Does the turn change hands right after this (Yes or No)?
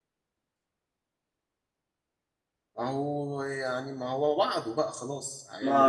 Yes